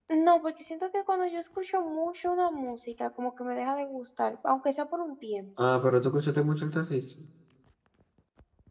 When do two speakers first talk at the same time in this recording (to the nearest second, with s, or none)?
none